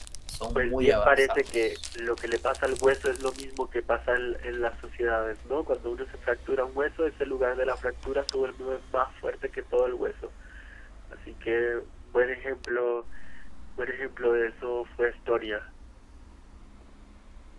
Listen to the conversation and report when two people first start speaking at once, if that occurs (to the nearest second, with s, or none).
1 s